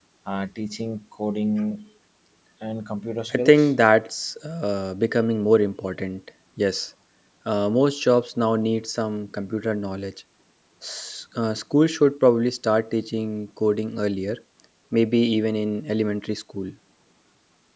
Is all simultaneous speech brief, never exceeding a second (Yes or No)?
Yes